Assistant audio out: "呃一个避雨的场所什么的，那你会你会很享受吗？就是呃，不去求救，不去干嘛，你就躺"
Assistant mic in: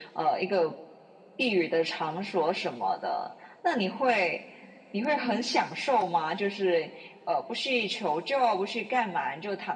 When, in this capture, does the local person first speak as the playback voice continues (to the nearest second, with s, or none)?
5 s